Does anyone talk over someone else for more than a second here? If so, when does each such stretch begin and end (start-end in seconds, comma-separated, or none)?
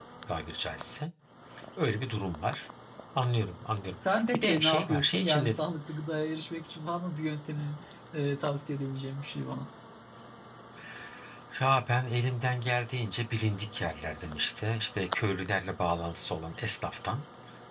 4.1-5.6